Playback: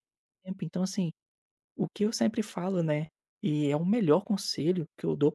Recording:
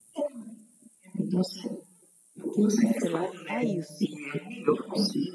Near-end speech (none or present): present